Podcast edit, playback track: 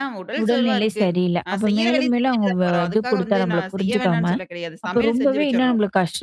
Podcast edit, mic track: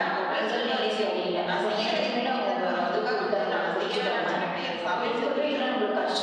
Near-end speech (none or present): none